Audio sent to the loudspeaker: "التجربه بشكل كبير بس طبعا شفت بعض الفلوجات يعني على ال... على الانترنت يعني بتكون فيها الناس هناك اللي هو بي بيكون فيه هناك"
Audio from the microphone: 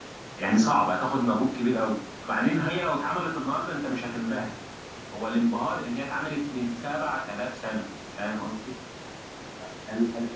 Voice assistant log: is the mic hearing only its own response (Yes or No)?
No